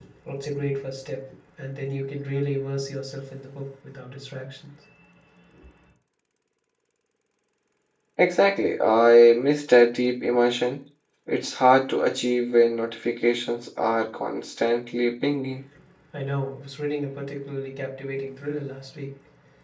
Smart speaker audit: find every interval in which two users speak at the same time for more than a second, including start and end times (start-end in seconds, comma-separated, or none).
none